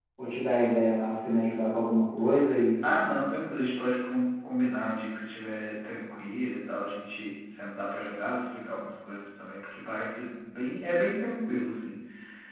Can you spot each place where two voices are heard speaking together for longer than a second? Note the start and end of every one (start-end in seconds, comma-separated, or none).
none